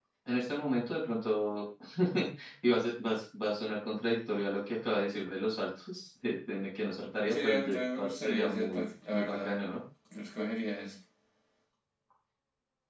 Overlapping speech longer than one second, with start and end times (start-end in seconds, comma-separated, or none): 7.3-9.5